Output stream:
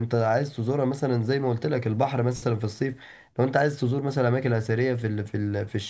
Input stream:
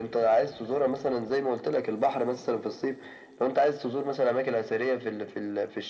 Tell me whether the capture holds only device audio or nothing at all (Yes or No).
Yes